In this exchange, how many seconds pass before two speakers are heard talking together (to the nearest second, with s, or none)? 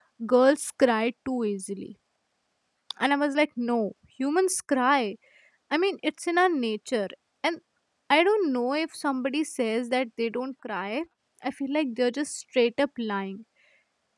none